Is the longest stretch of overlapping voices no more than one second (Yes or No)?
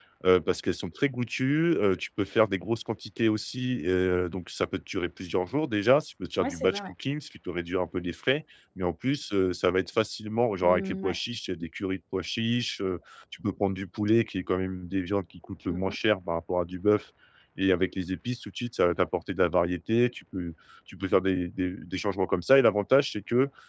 Yes